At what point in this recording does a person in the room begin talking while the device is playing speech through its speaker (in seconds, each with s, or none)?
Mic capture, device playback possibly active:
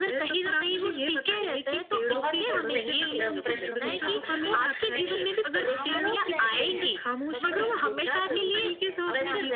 0.7 s